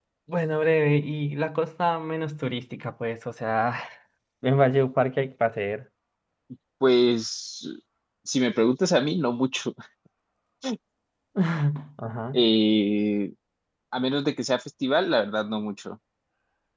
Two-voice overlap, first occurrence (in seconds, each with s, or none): none